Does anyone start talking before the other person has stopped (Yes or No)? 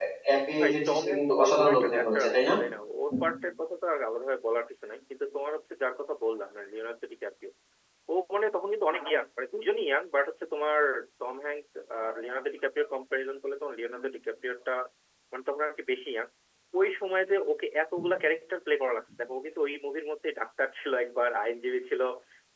Yes